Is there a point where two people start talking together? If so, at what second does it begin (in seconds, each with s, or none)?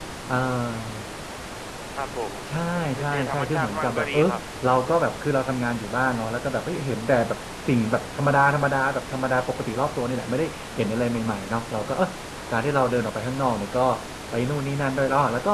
3.0 s